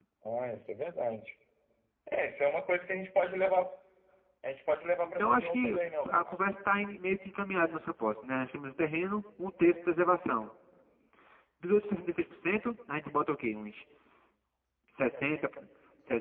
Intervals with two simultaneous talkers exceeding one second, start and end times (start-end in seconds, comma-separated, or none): 5.0-6.3